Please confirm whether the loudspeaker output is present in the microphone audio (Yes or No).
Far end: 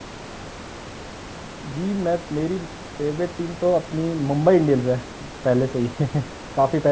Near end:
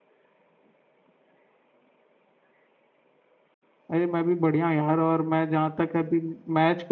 No